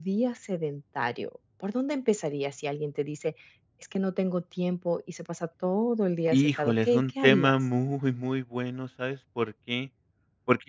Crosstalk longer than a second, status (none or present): present